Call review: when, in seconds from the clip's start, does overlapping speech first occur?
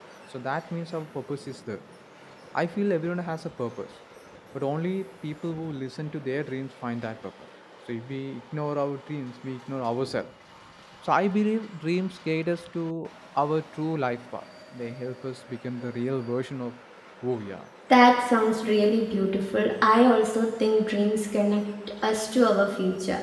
none

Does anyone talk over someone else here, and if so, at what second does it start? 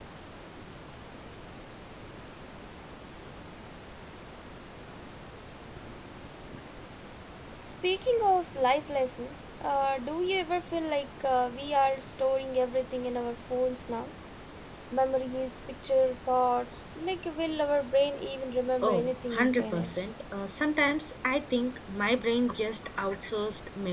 19 s

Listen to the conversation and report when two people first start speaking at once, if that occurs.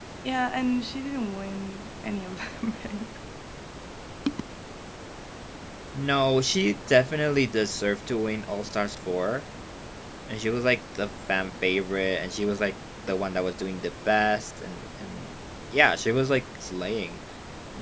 none

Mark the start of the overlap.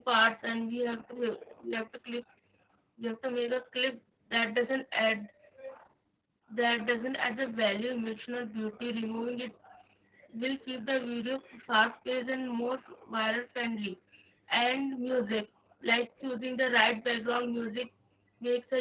none

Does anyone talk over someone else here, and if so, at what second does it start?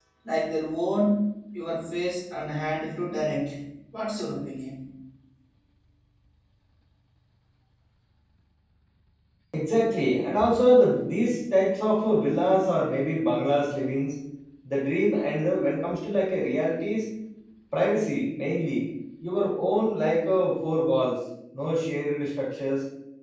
none

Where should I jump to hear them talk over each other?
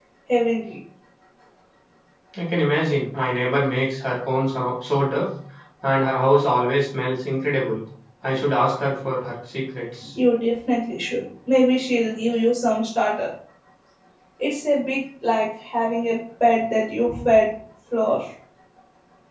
none

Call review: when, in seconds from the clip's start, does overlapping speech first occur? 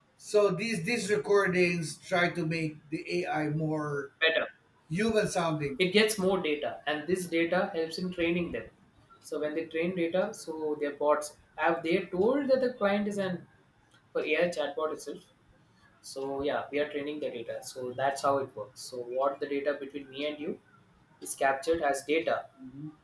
none

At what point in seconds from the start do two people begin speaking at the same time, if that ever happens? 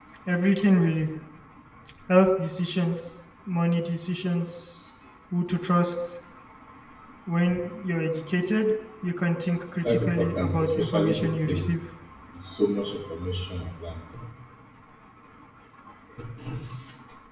10 s

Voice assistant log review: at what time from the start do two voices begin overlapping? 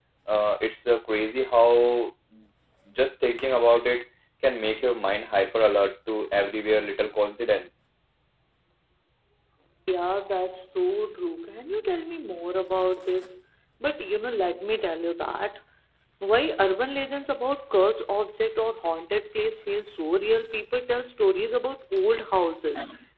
none

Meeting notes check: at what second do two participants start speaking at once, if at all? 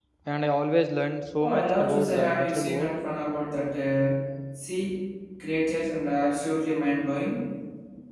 1 s

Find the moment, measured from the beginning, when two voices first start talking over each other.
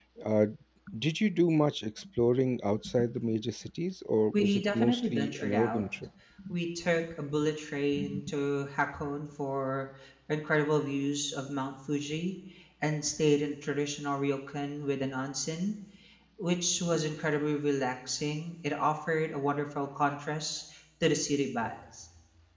4 s

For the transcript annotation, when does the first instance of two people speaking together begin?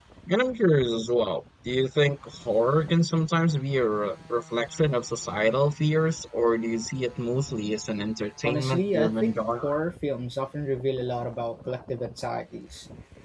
8 s

